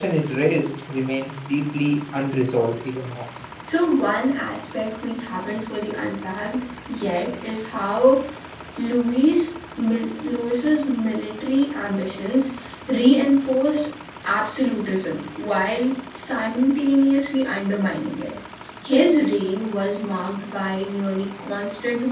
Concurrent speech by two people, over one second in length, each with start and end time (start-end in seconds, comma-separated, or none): none